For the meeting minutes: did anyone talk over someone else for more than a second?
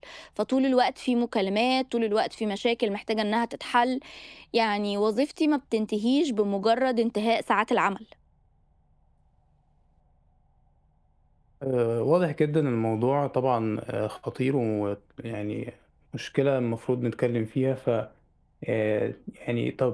No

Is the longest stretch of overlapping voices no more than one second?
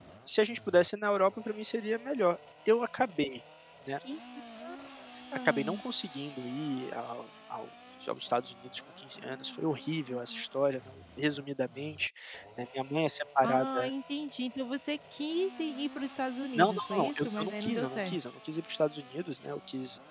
No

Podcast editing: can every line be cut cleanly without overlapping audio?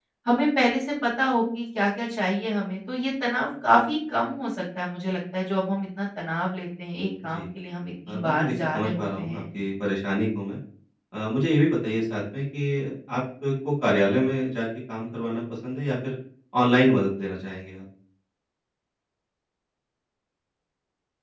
No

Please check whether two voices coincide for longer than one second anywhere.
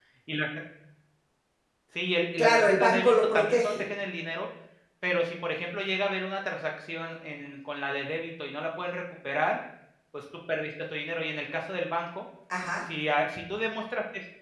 Yes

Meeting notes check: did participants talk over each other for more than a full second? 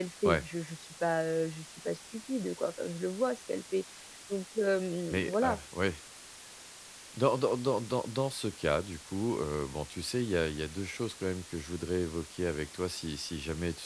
No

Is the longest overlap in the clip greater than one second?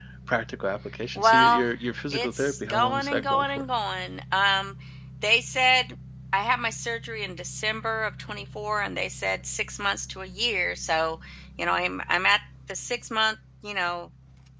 Yes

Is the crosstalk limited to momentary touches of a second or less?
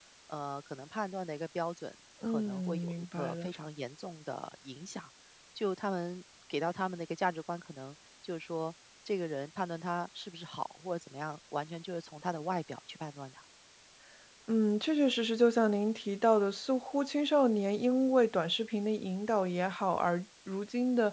No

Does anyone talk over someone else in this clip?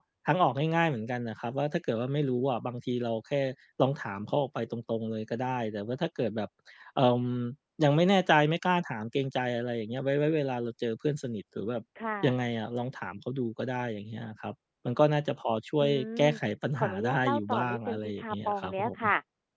Yes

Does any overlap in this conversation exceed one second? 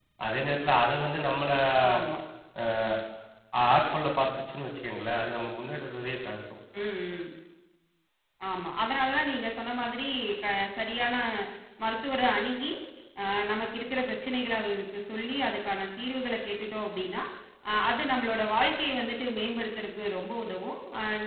No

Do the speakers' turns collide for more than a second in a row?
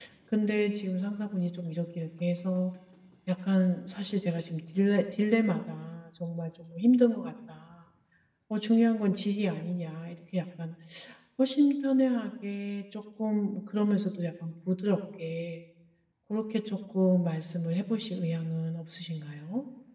No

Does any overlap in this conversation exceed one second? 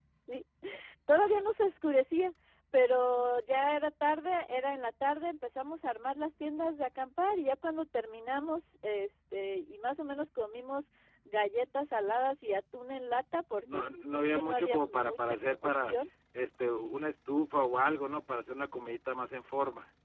Yes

